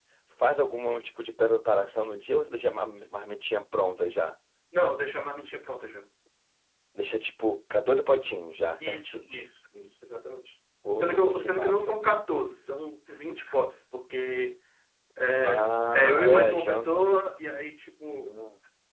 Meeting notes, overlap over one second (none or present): present